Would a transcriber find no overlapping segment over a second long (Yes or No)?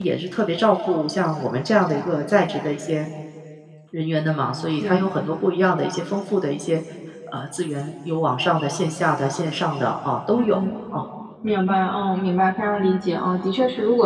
Yes